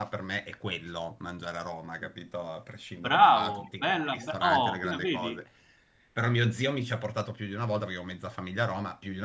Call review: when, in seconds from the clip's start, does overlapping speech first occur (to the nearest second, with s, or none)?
3 s